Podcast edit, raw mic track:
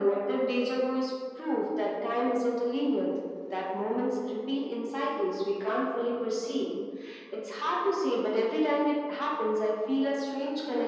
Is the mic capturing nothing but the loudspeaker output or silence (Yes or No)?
Yes